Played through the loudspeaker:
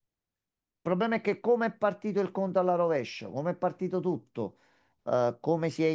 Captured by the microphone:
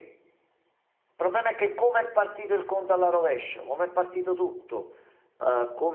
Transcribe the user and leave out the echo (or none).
none